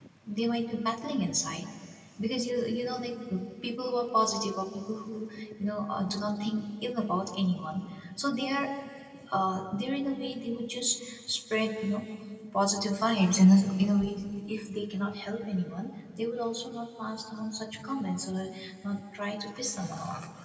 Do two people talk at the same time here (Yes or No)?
No